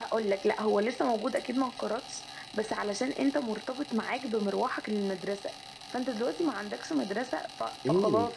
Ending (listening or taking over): taking over